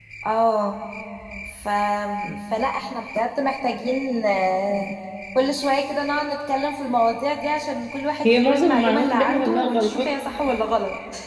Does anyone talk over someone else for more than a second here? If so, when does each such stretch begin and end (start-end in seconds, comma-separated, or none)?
8.2-10.0